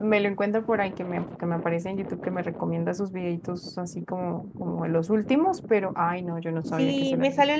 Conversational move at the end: taking over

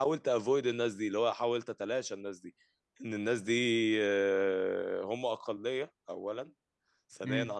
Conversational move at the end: listening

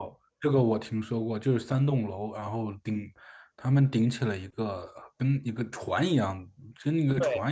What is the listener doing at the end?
listening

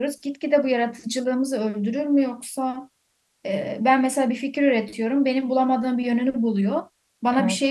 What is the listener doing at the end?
listening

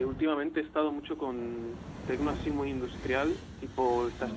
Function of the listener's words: listening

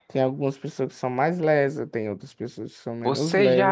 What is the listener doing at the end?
taking over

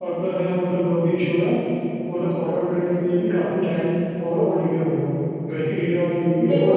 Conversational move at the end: taking over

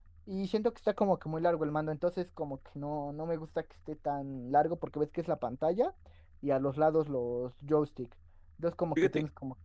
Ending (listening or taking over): listening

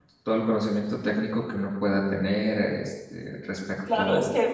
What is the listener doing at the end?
taking over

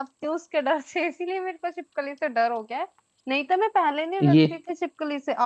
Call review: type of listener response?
listening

